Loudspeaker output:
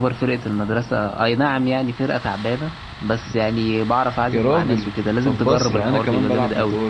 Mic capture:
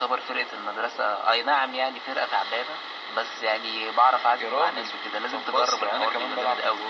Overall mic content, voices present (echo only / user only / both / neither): echo only